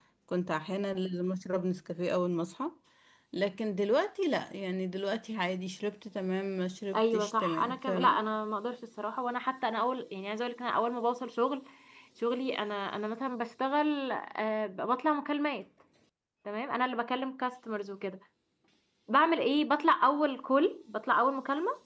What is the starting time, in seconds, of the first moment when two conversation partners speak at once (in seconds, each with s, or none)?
6.9 s